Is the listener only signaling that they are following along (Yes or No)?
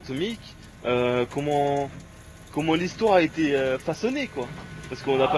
No